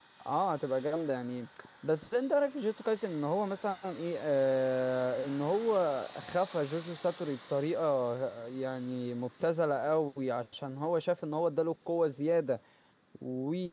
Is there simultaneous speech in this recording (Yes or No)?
No